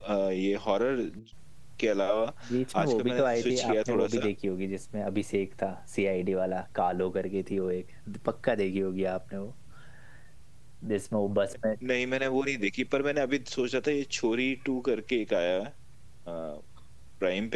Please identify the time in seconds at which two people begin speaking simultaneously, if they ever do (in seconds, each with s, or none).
2.8 s